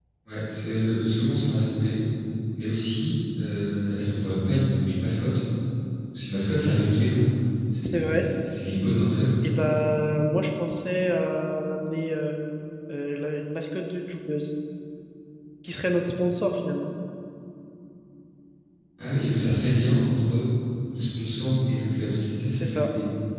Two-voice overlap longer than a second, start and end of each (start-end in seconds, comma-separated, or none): none